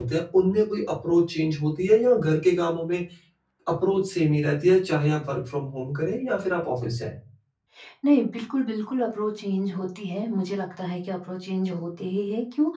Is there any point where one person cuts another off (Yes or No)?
No